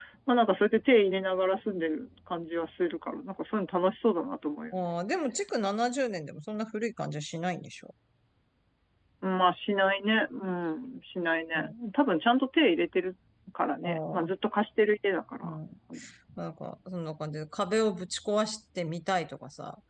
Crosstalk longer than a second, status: none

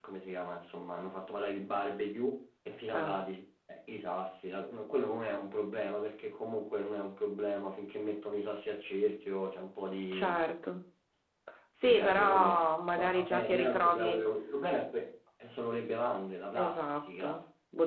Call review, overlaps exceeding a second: present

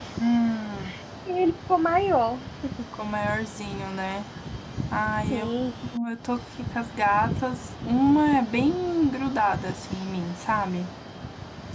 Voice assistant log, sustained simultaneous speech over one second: none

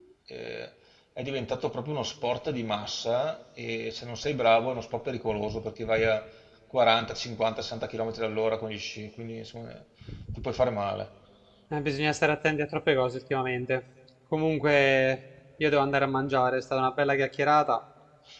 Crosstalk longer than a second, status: none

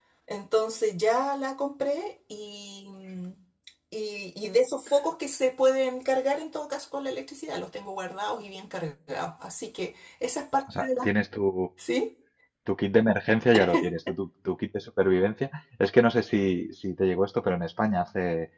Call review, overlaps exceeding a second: none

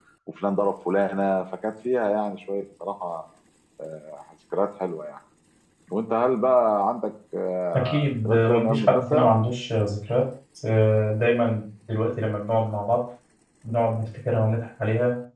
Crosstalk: present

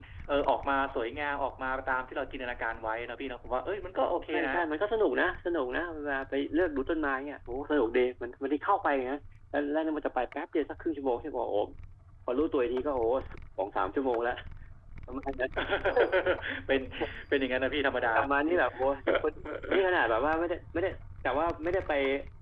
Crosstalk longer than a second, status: none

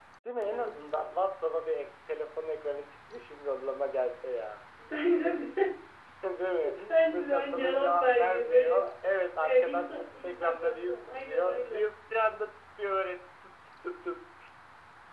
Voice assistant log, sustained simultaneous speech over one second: present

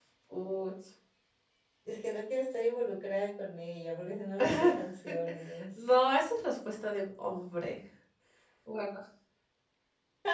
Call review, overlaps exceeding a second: none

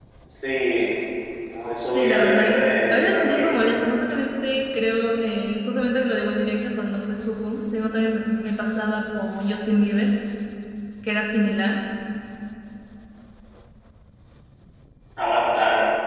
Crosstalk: present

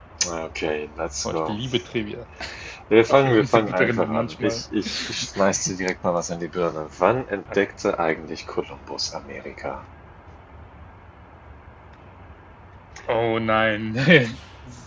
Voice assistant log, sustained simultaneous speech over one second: present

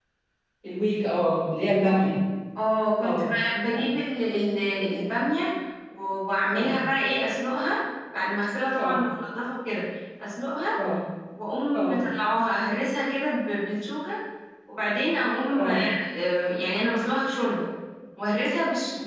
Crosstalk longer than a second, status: none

